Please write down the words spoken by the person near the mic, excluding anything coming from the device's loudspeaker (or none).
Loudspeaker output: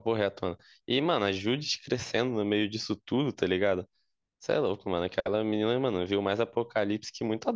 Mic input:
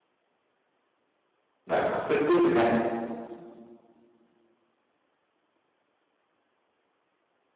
É, com certeza, cara.